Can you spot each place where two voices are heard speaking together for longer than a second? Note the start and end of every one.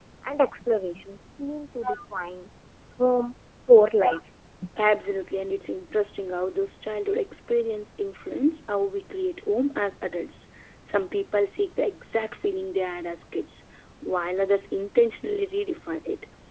none

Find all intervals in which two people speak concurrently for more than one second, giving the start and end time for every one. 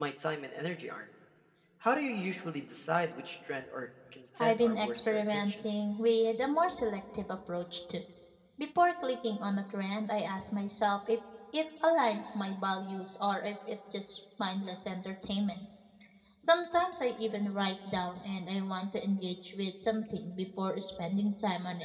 4.4-5.6

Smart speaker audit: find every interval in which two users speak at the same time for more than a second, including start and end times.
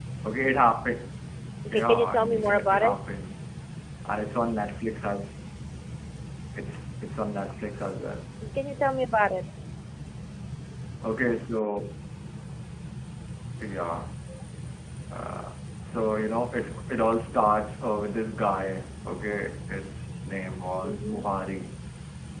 1.7-3.0

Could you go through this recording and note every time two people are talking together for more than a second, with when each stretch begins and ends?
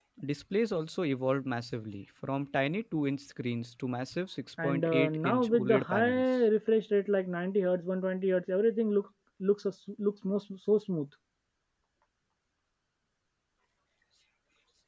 4.6-6.2

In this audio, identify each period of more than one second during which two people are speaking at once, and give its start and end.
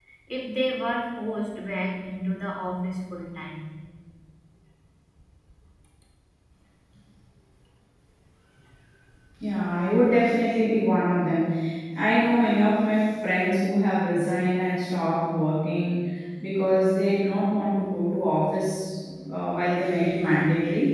none

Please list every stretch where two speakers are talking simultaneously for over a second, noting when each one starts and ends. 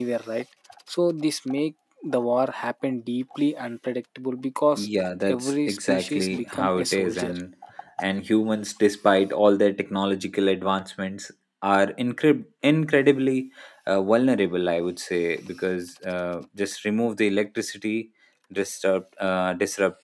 5.3-7.3

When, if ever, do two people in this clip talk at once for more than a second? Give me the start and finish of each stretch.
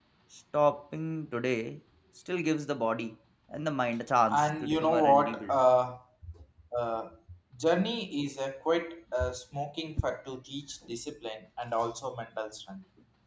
4.3-5.6

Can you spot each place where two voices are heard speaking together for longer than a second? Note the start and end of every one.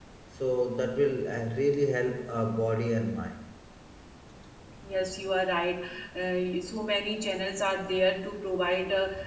none

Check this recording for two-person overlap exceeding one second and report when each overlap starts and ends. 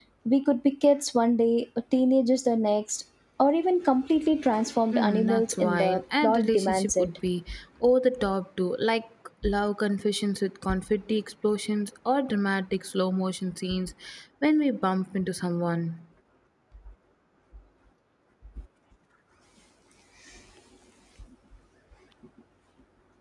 4.9-7.1

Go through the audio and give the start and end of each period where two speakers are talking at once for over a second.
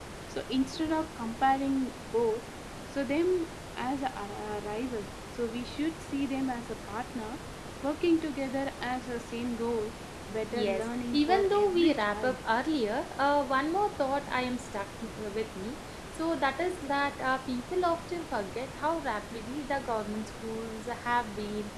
10.5-12.4

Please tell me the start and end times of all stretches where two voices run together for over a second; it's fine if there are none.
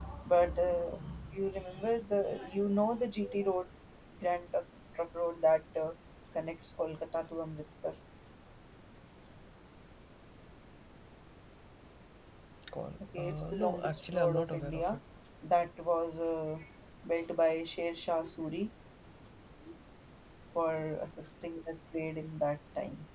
13.1-15.0

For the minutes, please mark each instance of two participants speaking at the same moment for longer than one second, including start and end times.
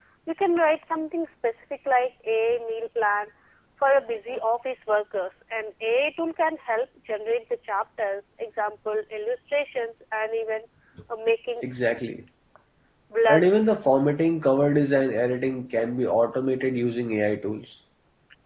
none

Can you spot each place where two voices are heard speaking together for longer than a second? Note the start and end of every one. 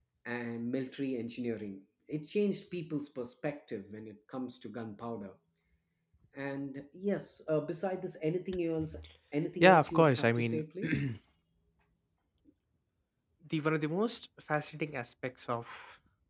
9.6-11.0

